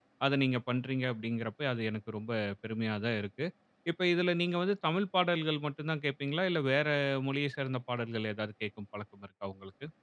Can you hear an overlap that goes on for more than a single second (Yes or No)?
No